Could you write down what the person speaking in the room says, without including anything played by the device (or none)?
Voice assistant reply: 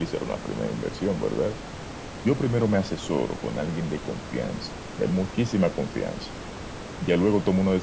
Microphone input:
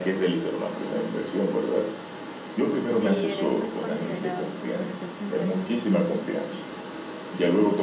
Sí, eres muy considerado de tu parte en pensar en tu familia.